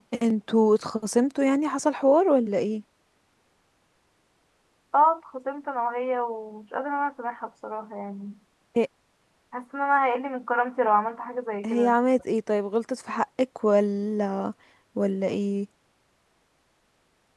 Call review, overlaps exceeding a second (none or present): none